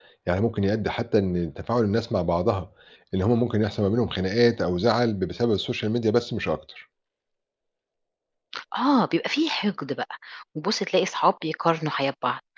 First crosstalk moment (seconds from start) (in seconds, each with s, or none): none